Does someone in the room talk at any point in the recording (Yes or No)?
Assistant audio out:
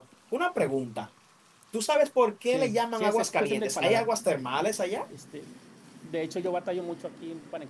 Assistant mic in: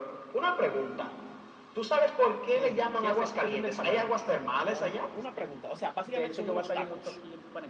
Yes